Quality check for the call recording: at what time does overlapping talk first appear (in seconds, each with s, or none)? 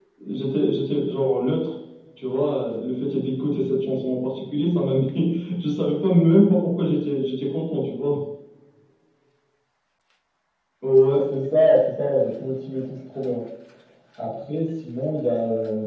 none